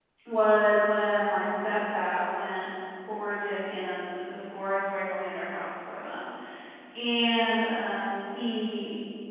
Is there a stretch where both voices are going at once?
No

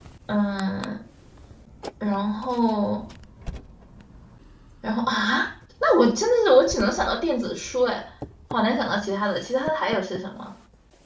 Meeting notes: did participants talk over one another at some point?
No

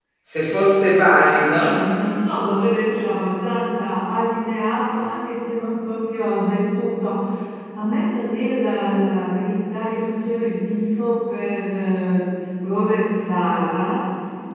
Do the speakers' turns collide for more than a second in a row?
No

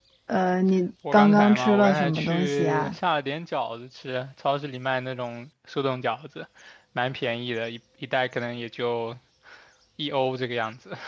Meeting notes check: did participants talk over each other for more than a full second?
Yes, from 1.1 s

